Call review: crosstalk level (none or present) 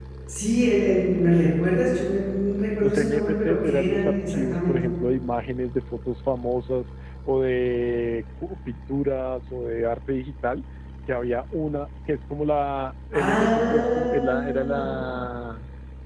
present